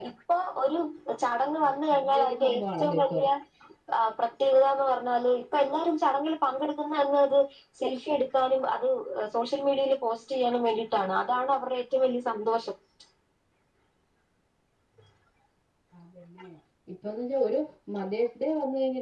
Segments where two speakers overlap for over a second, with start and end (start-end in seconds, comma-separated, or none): 1.9-3.2